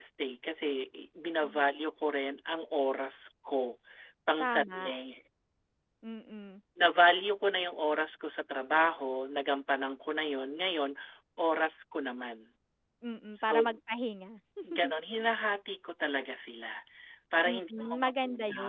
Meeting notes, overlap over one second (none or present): present